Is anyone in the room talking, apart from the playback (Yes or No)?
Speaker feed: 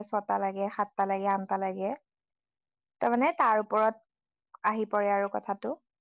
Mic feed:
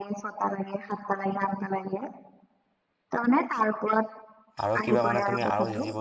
Yes